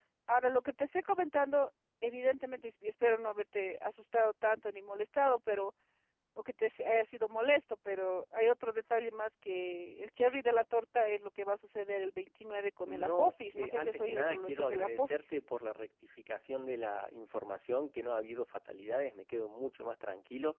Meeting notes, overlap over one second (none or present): present